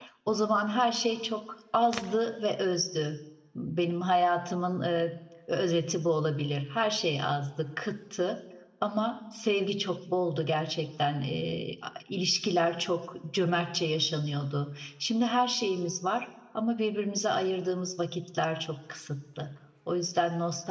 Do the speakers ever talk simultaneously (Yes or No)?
No